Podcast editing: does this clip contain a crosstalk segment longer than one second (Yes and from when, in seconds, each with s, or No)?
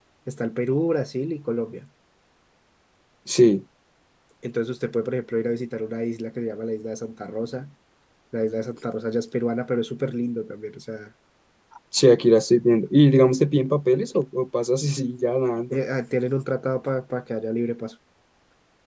No